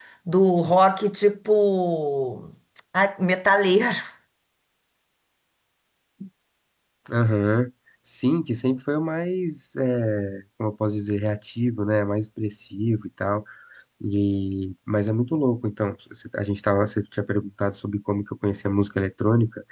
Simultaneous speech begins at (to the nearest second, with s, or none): none